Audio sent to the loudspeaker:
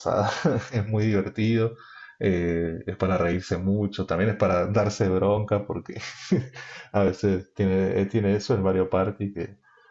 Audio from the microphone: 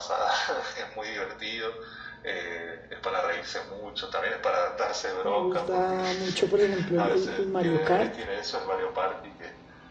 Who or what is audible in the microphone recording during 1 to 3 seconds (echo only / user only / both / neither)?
echo only